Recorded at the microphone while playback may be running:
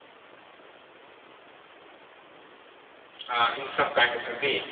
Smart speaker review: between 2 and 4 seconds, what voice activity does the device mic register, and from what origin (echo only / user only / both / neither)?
user only